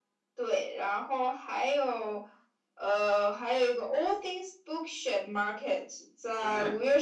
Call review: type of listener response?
listening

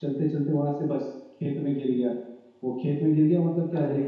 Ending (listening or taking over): listening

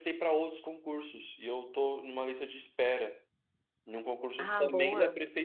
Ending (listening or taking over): listening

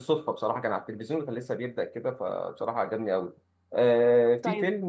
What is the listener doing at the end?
taking over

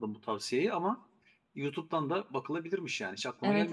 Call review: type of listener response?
taking over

